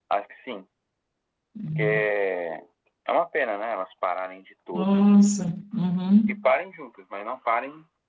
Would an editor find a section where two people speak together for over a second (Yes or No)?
No